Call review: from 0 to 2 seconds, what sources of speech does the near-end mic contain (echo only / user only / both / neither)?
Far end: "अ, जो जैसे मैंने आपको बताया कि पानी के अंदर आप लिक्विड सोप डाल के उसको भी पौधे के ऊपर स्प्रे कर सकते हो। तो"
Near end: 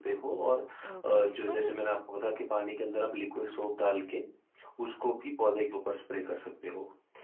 both